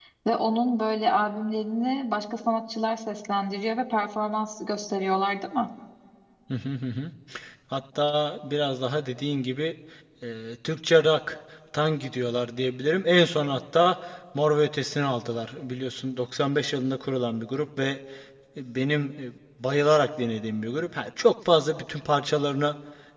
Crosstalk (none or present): none